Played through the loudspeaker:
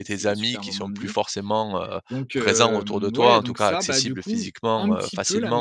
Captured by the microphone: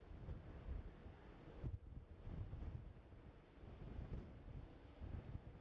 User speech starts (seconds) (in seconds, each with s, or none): none